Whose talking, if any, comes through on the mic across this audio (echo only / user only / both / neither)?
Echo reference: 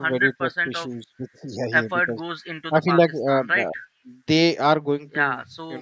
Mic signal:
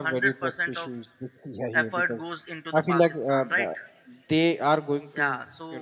echo only